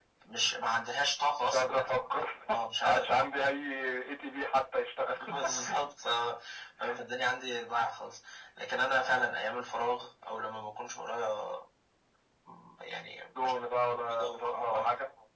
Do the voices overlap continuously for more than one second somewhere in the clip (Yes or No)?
Yes